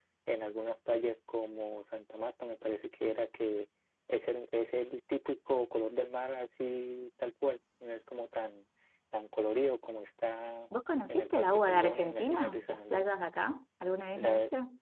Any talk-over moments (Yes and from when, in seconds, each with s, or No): Yes, from 11.1 s